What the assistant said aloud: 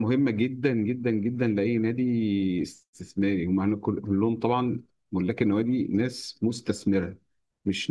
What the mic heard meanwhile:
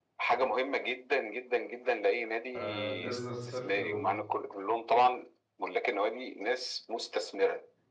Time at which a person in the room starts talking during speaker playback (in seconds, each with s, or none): 2.5 s